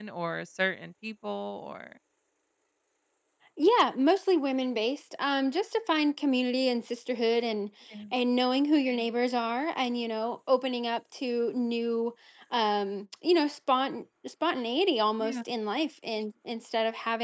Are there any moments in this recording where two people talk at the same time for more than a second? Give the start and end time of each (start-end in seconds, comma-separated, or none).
none